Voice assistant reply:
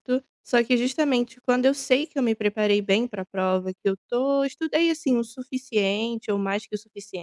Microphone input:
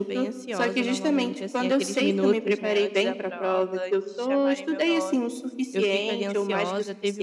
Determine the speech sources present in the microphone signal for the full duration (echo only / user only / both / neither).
both